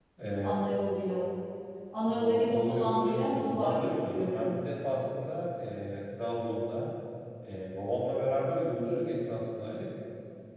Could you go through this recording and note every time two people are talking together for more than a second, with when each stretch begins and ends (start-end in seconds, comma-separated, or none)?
2.0-4.6